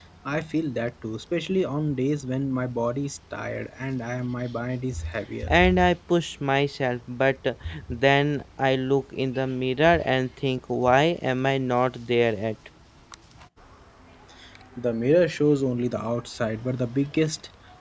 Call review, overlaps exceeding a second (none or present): none